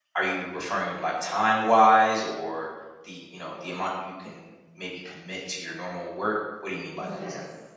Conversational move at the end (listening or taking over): taking over